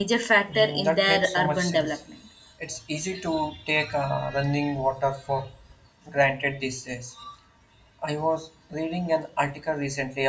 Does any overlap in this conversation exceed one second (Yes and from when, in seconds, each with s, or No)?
Yes, from 0.6 s